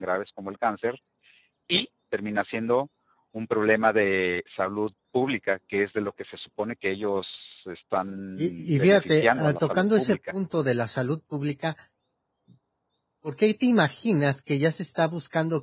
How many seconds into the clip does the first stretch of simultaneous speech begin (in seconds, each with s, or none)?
8.4 s